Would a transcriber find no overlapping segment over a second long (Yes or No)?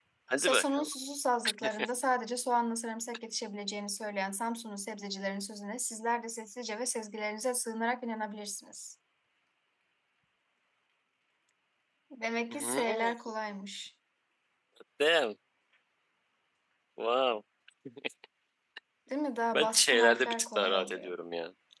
No